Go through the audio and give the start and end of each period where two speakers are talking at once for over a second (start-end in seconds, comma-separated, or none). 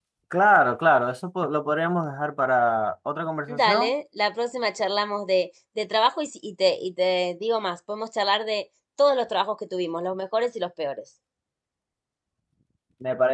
none